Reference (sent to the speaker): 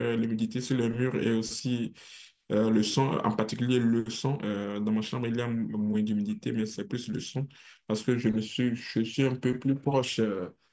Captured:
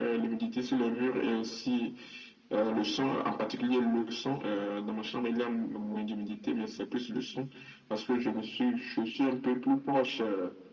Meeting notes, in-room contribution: none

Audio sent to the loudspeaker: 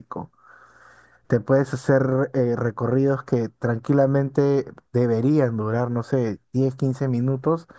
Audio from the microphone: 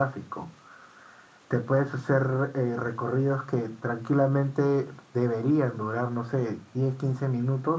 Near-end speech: none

